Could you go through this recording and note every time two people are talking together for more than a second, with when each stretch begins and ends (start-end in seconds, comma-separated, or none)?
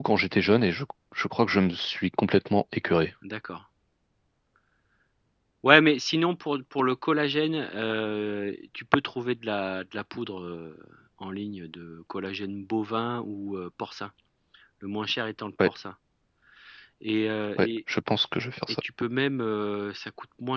none